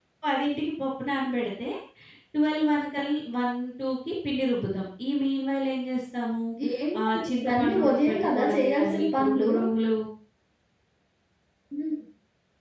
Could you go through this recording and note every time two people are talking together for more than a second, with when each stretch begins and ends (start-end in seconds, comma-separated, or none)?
7.0-9.5